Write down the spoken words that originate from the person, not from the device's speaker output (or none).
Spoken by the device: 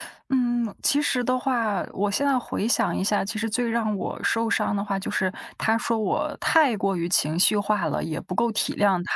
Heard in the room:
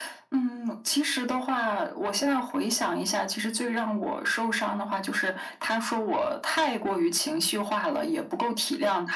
none